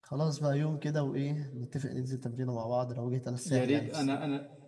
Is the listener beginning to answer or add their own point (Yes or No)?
Yes